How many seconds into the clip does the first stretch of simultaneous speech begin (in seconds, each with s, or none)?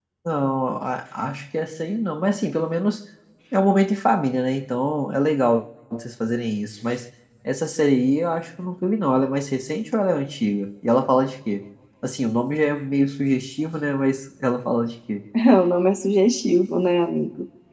none